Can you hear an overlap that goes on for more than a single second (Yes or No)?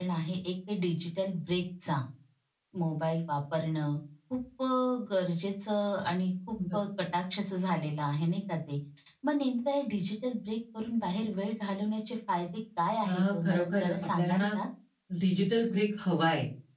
Yes